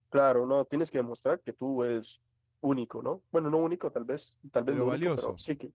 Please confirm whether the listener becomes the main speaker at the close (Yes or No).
No